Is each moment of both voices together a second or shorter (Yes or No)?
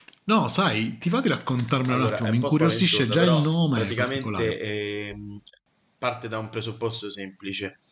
No